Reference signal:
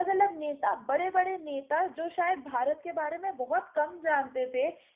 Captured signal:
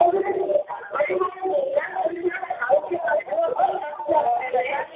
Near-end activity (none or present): present